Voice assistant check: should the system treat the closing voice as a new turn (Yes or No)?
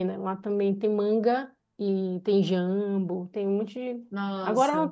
No